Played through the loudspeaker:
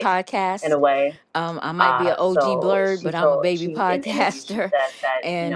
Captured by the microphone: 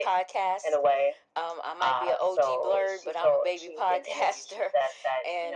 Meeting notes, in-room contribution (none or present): none